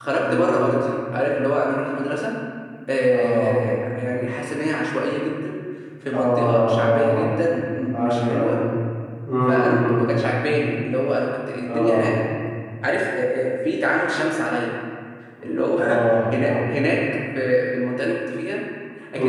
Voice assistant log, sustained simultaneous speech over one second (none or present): present